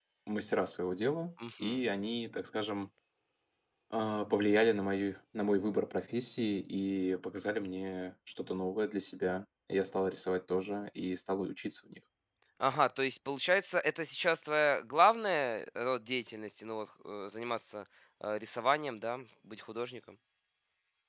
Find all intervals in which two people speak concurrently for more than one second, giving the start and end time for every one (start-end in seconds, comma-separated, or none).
none